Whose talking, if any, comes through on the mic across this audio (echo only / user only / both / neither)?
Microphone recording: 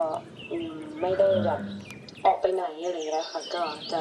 both